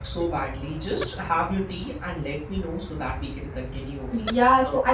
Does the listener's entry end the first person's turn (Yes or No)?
Yes